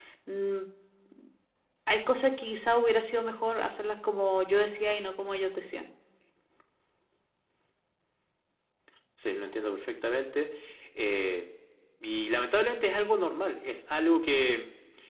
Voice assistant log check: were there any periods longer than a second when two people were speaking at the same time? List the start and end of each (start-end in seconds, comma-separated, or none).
none